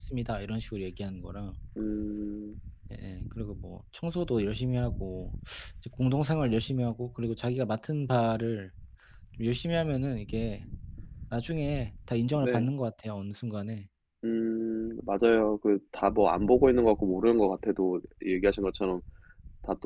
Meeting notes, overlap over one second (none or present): none